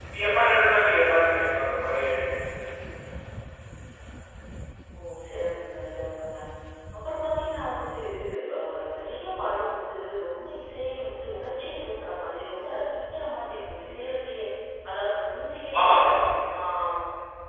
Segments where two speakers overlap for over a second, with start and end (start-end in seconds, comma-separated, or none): none